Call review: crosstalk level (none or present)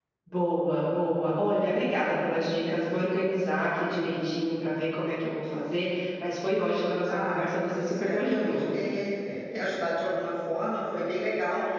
present